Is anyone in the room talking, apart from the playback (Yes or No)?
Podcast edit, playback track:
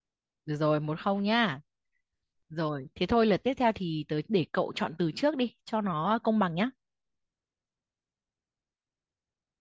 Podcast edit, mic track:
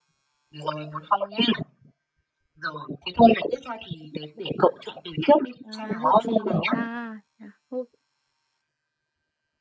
Yes